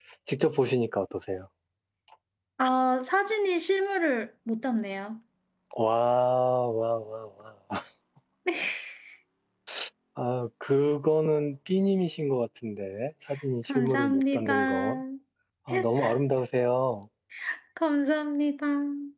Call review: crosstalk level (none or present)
present